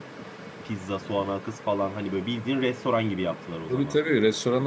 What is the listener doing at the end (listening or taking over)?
taking over